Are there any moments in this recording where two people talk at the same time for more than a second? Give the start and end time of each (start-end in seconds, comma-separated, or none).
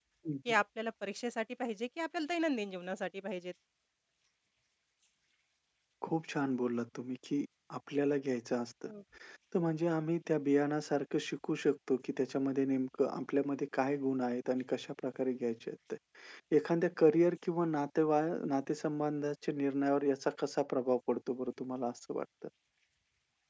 none